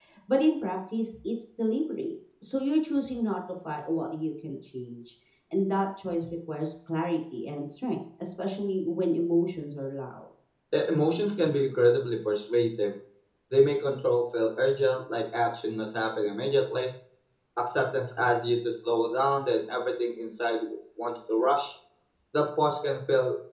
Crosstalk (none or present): none